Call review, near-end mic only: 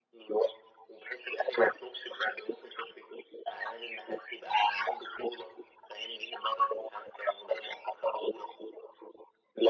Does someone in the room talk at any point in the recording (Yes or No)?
No